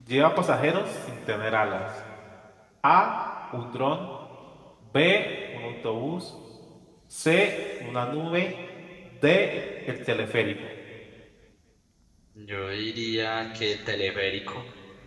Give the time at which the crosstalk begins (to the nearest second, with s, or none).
none